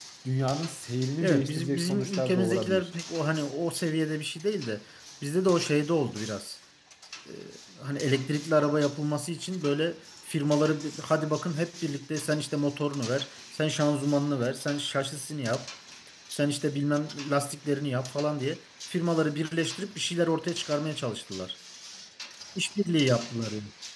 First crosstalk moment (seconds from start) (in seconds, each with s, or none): 1.2 s